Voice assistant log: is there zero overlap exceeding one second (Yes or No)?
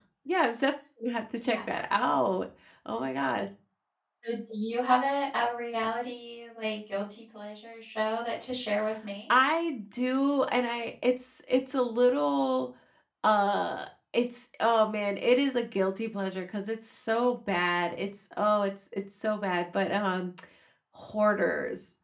Yes